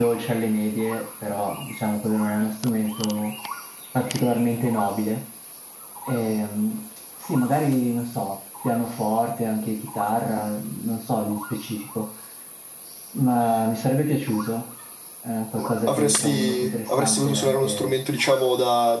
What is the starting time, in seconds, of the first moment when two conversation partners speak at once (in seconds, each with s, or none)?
15.6 s